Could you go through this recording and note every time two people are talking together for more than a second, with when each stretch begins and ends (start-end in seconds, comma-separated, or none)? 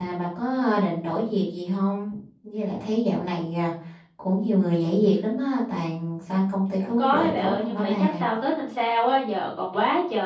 6.8-8.2